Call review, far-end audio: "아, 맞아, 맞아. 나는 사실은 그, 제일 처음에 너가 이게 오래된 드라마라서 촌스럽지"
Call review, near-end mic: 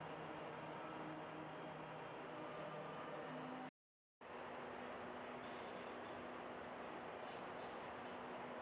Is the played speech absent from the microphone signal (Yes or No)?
Yes